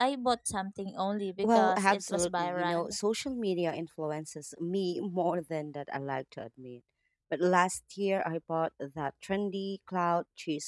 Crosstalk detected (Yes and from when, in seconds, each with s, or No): Yes, from 1.4 s